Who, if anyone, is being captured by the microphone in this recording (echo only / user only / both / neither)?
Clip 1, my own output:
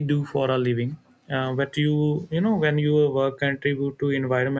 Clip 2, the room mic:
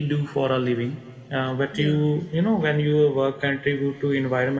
both